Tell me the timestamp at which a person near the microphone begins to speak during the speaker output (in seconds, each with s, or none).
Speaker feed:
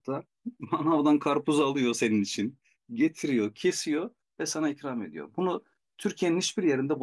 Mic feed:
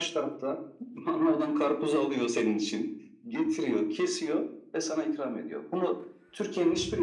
none